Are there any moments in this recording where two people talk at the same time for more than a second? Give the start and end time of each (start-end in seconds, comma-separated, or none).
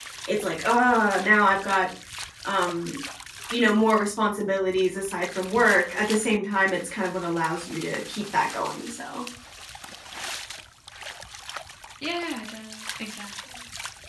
none